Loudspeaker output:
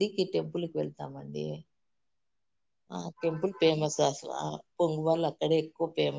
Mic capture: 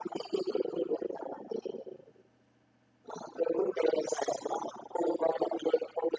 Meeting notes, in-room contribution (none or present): none